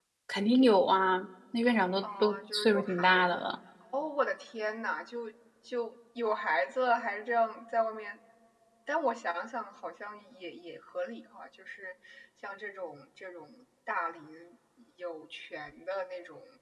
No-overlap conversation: No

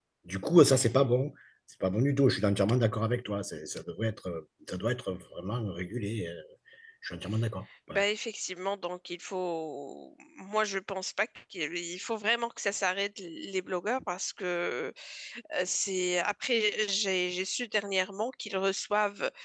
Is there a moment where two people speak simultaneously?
No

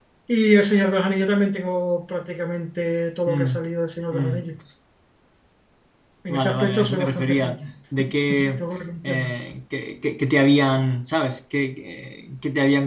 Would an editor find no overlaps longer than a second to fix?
No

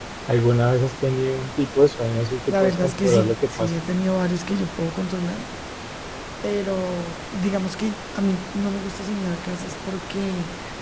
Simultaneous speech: Yes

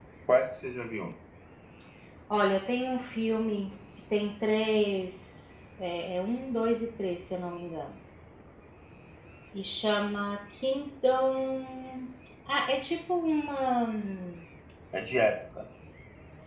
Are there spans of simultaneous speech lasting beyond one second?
No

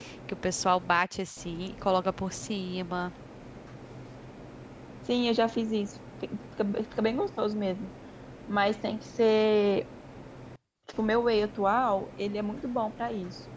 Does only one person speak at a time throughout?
Yes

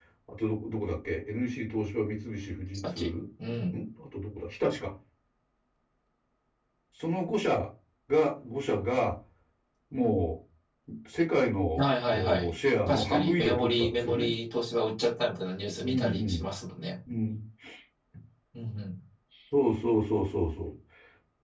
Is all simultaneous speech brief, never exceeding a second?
No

